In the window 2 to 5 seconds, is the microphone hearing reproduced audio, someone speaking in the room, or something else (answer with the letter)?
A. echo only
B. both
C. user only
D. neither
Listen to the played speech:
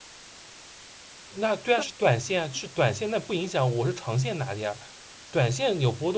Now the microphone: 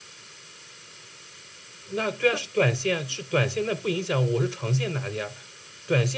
A